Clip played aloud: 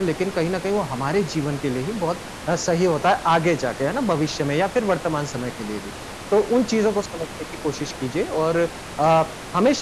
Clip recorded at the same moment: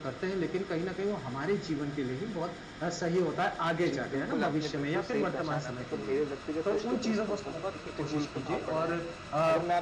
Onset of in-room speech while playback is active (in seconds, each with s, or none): 3.8 s